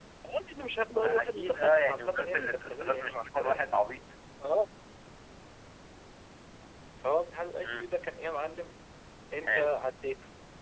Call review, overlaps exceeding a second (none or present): present